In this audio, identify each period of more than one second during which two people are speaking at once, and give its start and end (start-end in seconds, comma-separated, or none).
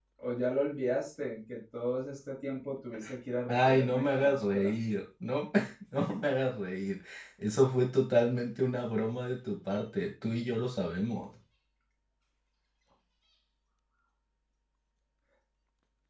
3.5-4.7